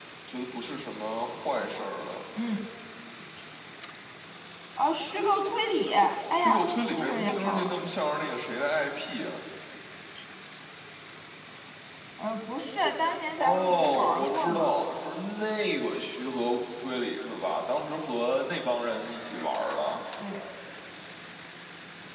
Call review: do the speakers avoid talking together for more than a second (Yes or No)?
No